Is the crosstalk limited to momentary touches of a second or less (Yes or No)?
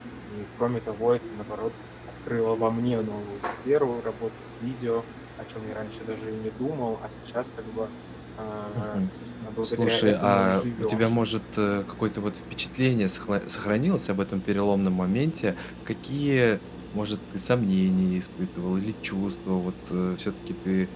No